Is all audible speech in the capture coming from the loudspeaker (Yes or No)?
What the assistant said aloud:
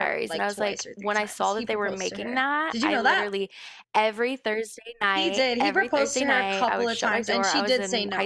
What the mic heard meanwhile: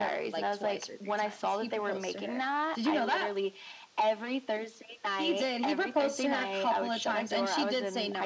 Yes